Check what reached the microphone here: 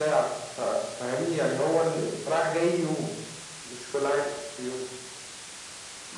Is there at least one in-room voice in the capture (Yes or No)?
No